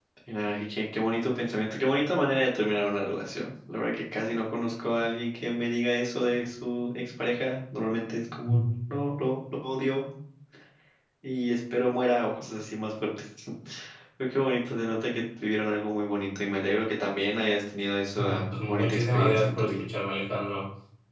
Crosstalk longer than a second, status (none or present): present